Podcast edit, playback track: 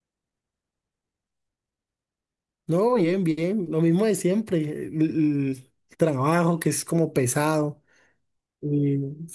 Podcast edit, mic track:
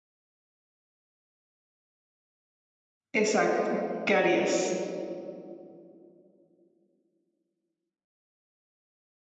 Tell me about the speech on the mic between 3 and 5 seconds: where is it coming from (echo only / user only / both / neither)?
user only